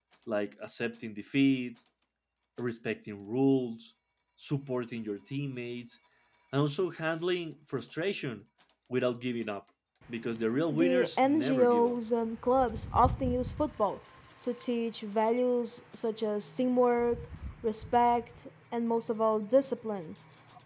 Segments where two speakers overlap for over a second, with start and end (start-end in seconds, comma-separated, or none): 10.7-12.0